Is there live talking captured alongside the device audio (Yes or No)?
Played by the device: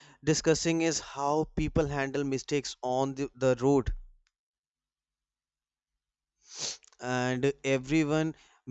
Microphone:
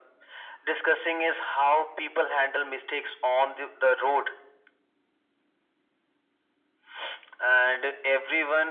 No